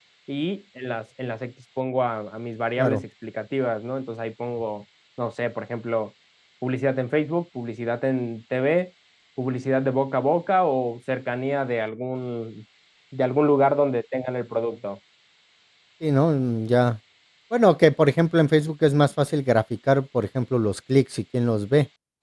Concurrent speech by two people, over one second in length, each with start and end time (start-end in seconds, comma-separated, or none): none